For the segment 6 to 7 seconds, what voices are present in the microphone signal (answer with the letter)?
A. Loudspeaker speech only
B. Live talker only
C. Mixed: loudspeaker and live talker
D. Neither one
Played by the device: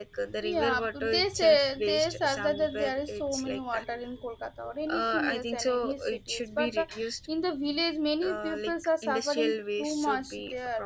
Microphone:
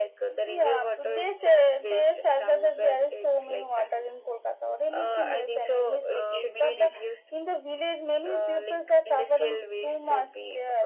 C